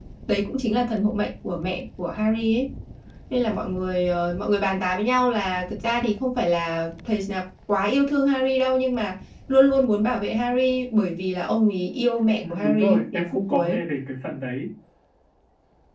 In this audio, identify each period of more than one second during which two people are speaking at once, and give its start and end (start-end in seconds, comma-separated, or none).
12.5-13.8